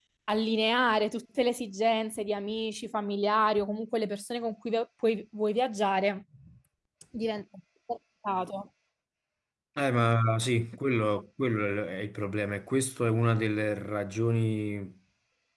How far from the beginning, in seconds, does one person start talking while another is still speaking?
none

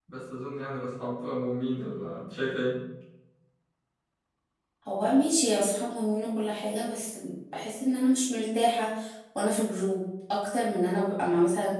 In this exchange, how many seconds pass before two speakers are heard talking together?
none

